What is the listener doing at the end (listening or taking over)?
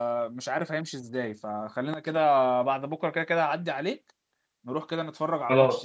taking over